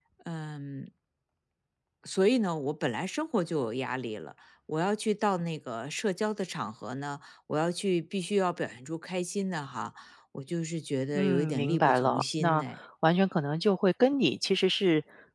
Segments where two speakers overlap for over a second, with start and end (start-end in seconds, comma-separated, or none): 11.2-12.6